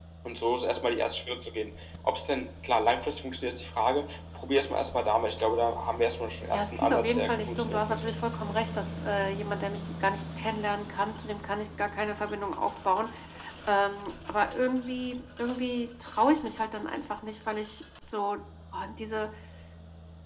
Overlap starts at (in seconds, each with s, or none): 6.5 s